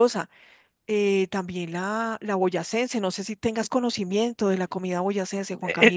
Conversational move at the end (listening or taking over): taking over